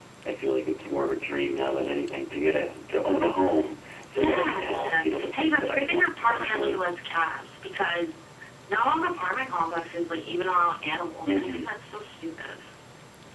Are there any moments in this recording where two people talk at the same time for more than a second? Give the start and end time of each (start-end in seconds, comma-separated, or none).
4.1-6.8